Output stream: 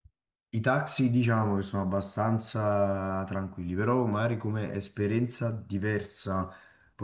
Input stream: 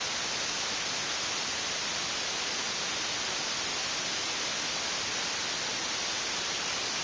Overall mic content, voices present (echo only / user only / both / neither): neither